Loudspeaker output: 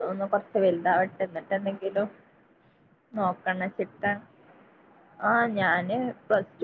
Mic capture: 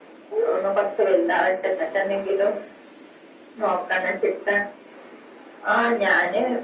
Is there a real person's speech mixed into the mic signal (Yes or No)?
No